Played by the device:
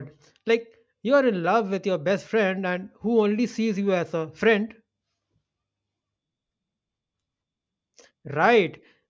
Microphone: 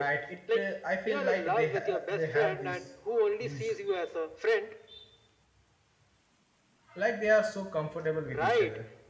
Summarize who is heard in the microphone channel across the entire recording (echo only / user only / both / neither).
both